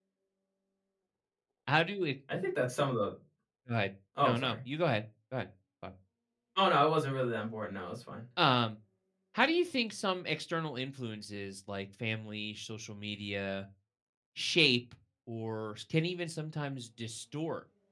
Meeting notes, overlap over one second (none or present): none